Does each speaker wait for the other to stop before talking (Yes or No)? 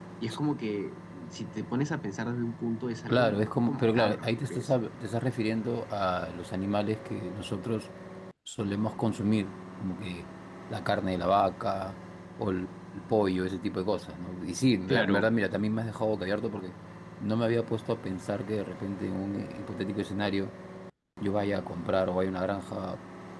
No